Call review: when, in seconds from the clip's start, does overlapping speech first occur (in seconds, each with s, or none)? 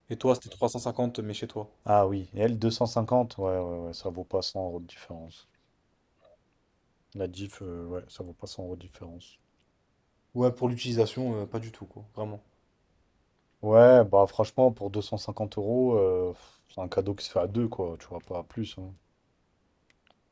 none